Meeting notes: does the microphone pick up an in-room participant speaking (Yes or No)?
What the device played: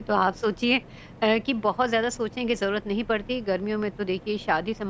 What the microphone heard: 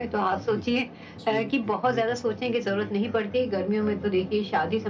Yes